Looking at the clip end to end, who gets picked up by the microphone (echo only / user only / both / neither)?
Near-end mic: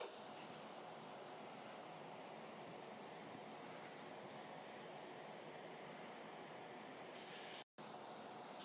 neither